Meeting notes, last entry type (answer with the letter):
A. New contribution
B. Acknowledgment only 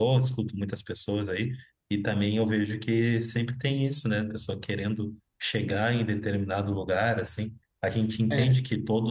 B